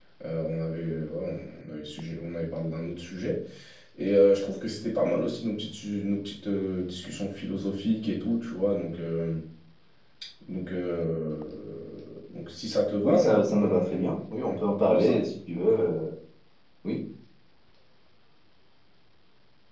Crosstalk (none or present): present